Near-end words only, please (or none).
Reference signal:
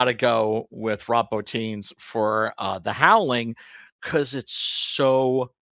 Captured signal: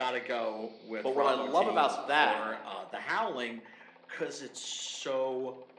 But what I love about that